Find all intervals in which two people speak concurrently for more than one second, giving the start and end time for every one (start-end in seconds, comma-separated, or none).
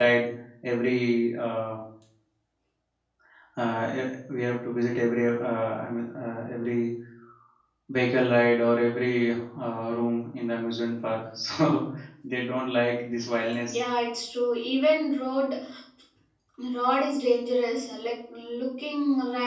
none